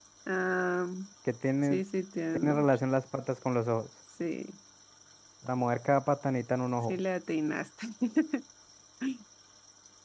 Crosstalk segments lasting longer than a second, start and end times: none

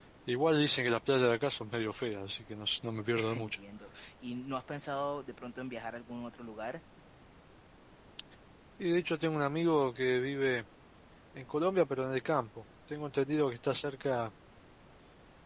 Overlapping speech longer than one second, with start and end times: none

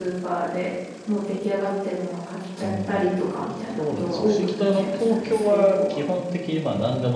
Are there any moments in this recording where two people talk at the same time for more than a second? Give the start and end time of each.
3.8-6.0

